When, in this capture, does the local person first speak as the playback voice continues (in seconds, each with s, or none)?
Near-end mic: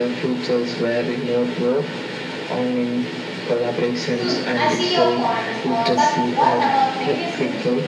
4.1 s